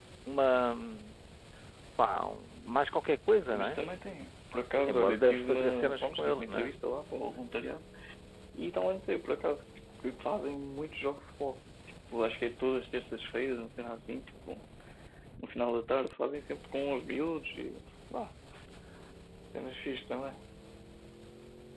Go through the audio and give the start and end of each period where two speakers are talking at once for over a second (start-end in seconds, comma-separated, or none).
4.8-6.7